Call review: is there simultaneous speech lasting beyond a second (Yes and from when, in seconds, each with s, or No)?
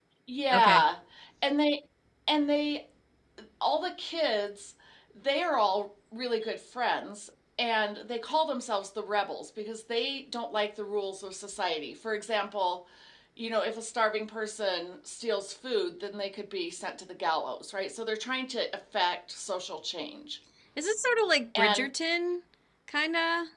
No